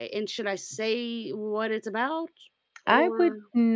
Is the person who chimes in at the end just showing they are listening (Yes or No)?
No